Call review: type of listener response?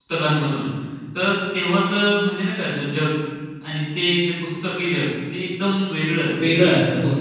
taking over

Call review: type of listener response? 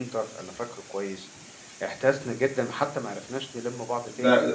taking over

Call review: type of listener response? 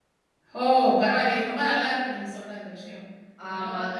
listening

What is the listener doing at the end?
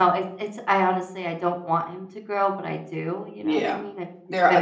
taking over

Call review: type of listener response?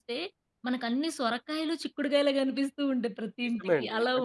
taking over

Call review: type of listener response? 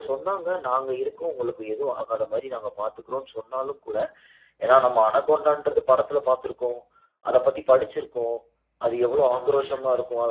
listening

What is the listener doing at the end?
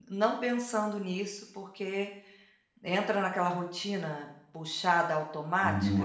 taking over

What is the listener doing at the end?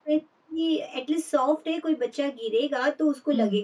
taking over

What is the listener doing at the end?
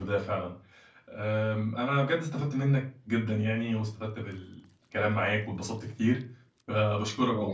listening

